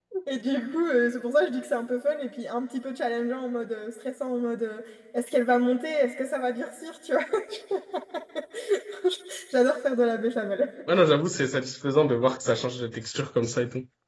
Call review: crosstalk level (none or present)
none